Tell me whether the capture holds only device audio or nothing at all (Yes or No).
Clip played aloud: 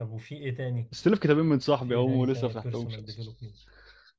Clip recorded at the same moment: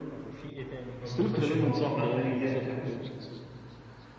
No